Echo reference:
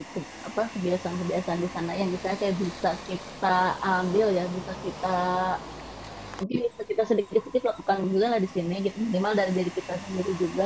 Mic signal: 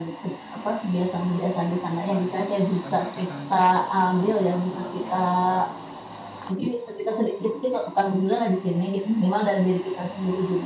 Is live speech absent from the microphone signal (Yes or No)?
No